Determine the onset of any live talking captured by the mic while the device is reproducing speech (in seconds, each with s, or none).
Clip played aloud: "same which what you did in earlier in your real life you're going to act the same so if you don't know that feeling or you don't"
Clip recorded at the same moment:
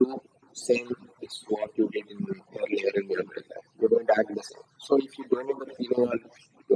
none